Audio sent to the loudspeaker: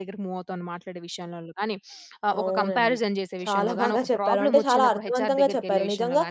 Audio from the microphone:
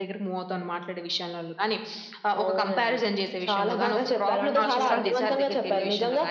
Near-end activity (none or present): present